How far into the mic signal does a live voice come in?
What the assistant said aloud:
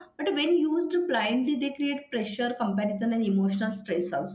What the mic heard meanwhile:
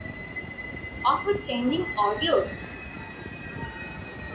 1 s

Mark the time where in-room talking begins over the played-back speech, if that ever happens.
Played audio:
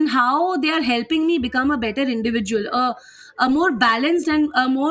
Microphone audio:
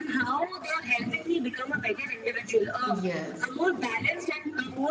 3 s

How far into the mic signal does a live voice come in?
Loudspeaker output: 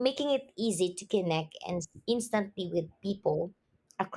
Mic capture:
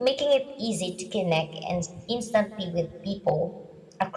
none

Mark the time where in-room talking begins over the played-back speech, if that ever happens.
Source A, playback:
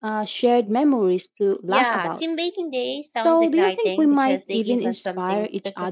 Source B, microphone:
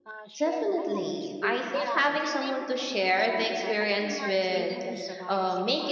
0 s

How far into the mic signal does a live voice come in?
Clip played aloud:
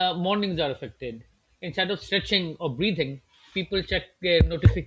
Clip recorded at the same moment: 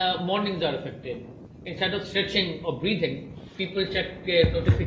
none

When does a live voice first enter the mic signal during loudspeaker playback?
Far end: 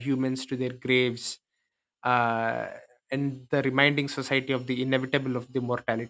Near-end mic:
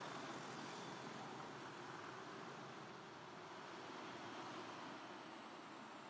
none

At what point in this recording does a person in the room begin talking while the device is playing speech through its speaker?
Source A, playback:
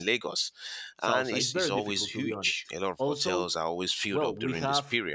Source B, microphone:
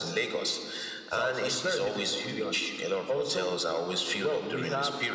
none

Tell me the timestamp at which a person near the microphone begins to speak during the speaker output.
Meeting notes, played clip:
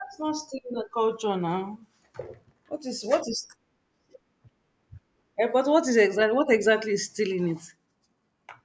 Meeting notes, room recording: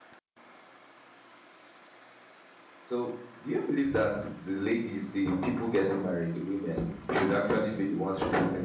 3 s

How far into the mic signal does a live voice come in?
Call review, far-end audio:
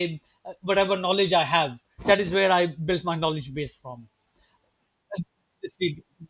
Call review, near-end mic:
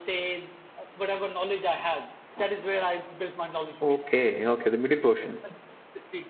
4 s

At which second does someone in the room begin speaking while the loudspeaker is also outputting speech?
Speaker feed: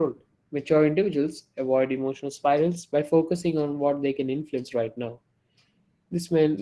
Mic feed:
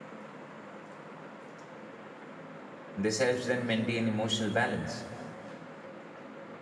3 s

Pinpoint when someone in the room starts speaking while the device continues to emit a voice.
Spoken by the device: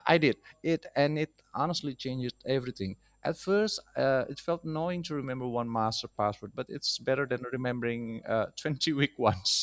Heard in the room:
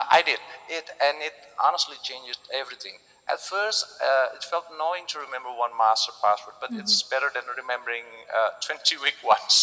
7 s

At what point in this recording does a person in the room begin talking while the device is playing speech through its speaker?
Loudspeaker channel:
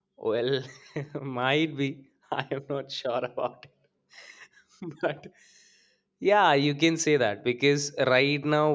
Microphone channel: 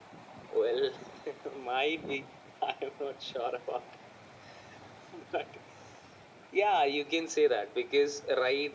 none

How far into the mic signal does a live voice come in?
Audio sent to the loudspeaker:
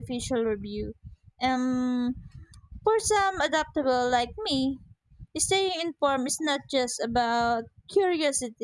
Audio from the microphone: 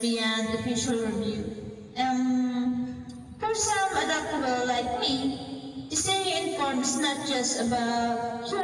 none

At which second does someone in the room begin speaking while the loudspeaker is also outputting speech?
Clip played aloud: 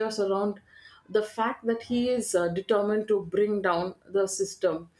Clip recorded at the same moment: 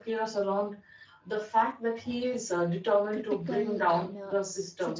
3 s

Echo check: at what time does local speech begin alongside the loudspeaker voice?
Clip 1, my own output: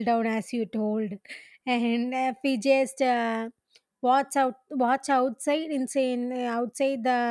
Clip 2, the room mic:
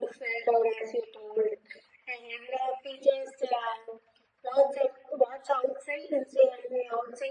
none

